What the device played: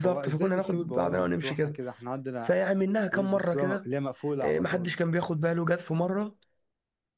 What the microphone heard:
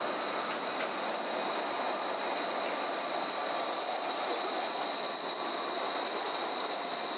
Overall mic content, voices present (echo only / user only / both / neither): neither